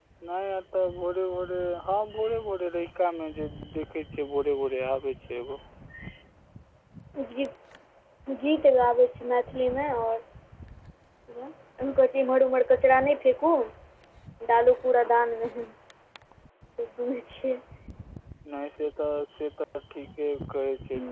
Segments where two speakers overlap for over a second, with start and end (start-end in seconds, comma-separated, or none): none